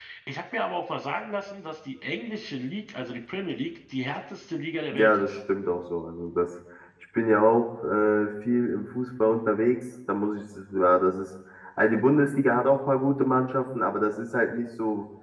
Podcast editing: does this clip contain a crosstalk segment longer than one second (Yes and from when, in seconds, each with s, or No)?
No